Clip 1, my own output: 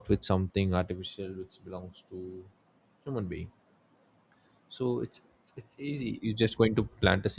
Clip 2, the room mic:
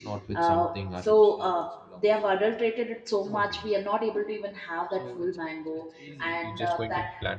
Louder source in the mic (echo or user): user